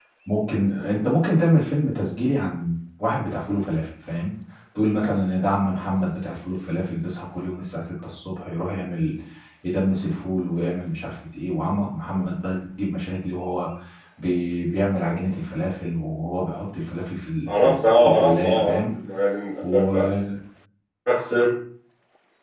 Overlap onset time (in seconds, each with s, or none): 17.5 s